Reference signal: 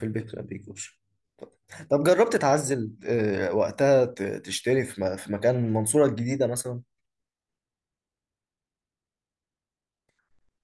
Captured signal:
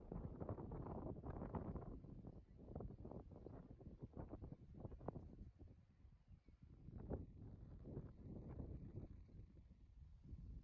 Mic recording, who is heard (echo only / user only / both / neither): neither